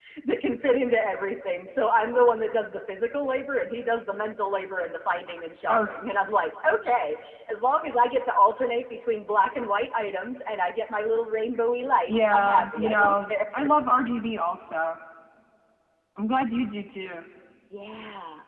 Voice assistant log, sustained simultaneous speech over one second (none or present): present